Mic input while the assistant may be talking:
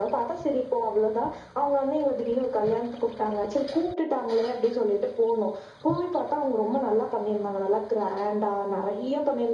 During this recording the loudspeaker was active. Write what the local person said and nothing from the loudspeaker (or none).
none